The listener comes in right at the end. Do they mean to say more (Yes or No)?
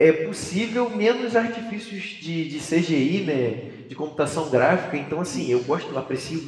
No